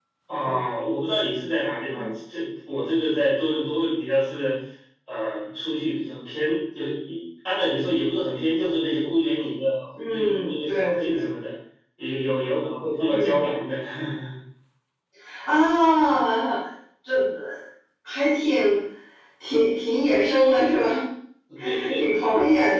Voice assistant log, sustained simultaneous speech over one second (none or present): present